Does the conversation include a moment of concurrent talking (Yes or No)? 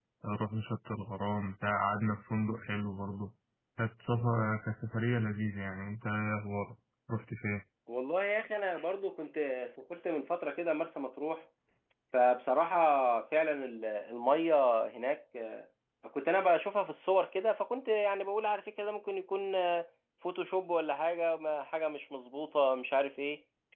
No